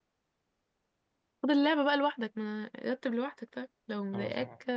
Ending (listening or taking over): taking over